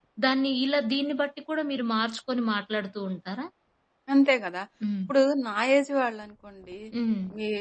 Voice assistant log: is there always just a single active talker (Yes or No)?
Yes